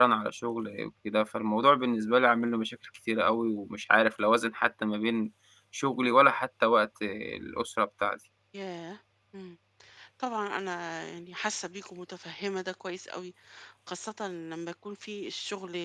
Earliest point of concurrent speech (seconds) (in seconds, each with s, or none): none